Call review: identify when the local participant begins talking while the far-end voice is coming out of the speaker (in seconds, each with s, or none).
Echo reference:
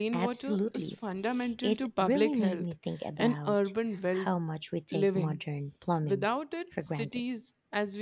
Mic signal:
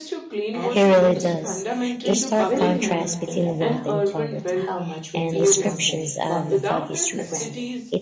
0.7 s